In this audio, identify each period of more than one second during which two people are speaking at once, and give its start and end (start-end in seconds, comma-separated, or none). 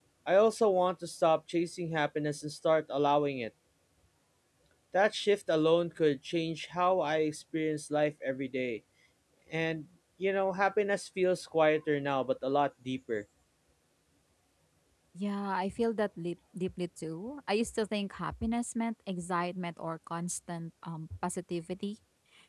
none